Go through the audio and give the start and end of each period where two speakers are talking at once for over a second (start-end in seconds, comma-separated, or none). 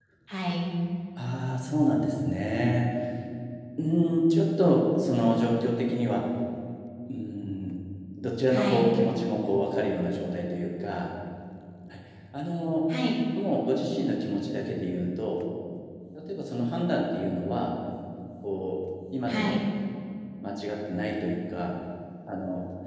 none